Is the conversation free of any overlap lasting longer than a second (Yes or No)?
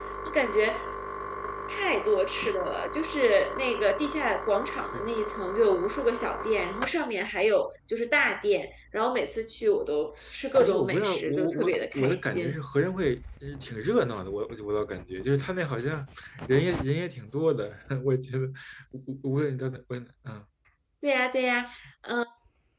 No